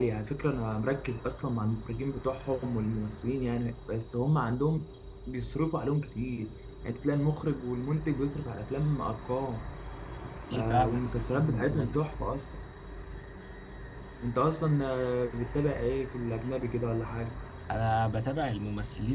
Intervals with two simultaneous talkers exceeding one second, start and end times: 10.7-12.0

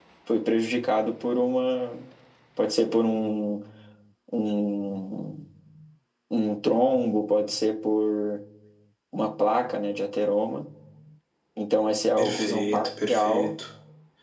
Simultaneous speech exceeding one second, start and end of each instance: 12.2-13.5

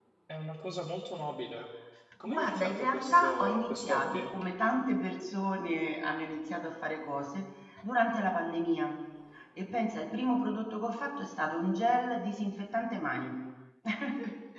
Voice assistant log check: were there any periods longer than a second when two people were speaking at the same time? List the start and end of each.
2.2-4.3

